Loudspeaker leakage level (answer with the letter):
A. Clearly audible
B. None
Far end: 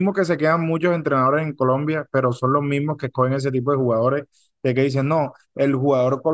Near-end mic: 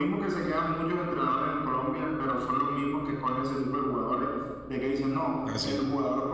A